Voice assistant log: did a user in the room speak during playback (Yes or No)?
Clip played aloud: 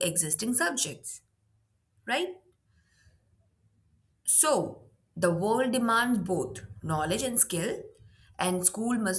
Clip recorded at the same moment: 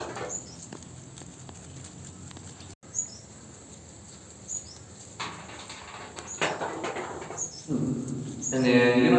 Yes